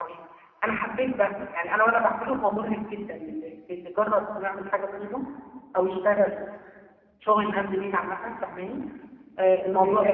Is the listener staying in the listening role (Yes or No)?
Yes